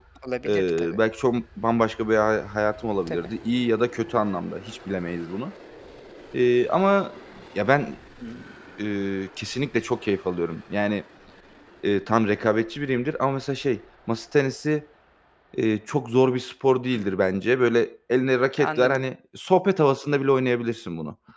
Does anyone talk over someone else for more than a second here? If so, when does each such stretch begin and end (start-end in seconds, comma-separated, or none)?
none